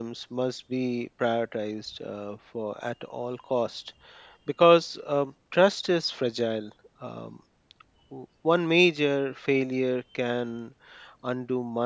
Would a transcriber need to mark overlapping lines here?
No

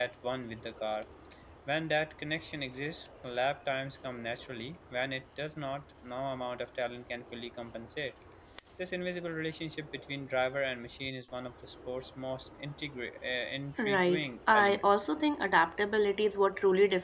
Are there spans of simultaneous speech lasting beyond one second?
Yes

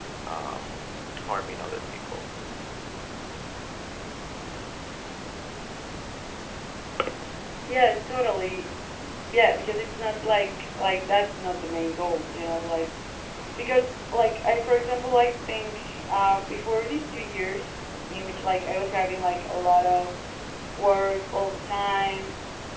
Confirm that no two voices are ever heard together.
Yes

